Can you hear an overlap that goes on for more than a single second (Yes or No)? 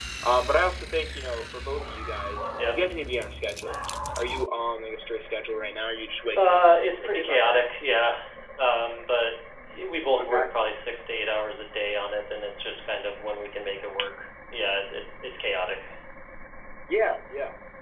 Yes